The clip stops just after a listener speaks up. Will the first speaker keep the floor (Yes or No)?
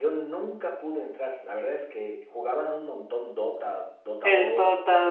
No